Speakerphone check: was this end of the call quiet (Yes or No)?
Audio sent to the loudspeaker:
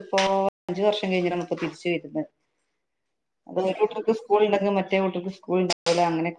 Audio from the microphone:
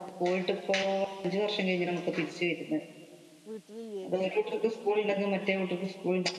No